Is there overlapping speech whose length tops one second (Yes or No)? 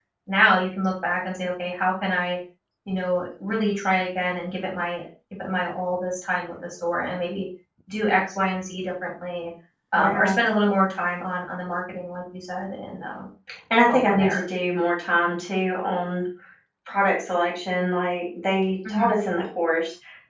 No